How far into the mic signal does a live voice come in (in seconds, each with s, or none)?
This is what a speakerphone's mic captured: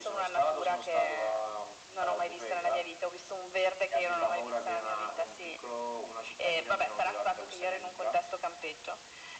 none